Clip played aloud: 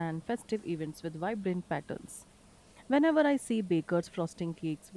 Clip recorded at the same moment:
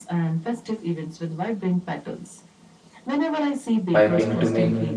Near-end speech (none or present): present